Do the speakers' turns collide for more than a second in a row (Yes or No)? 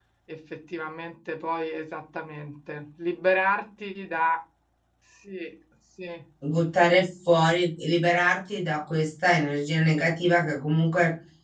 No